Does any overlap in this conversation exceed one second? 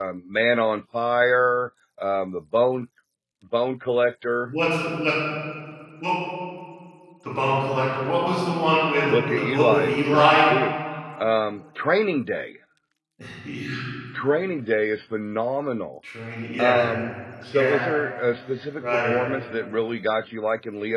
Yes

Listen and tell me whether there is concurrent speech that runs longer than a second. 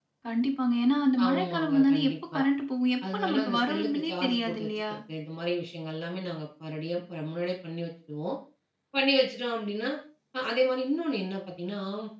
Yes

